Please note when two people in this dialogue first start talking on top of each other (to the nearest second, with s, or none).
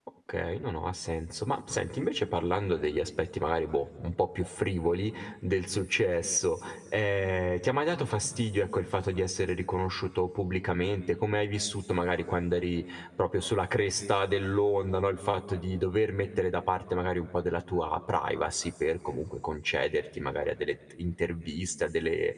none